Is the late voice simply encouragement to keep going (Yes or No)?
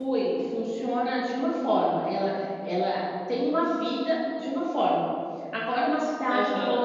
Yes